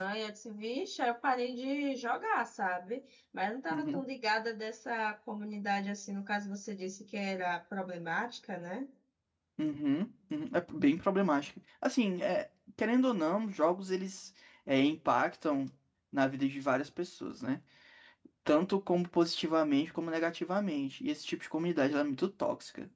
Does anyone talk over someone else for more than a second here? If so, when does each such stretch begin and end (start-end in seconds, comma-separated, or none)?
none